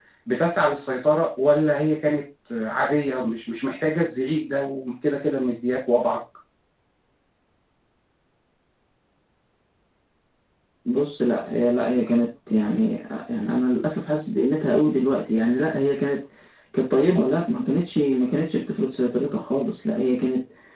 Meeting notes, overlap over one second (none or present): none